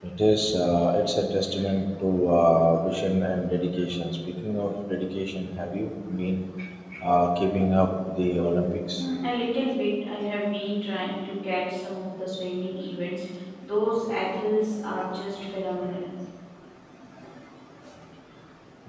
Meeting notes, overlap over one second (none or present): none